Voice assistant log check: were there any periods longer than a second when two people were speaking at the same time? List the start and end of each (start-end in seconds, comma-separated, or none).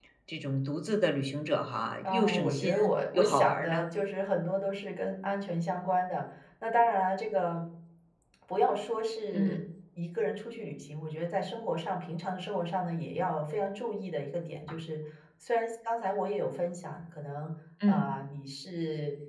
2.0-3.9